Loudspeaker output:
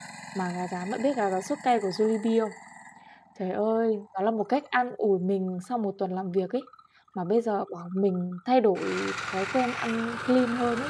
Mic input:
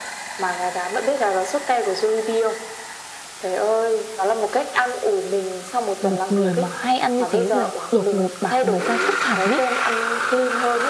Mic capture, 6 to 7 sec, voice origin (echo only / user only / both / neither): both